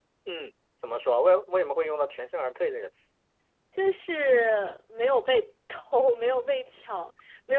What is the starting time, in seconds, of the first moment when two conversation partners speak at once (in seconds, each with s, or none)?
none